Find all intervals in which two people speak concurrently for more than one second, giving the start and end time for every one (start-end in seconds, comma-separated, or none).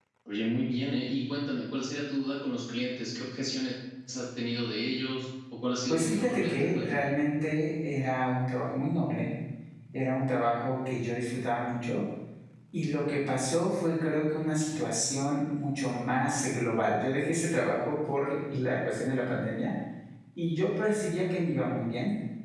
5.9-7.1